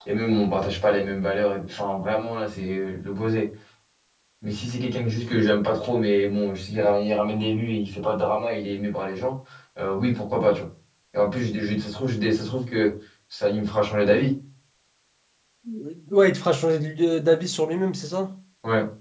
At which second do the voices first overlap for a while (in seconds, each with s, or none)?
none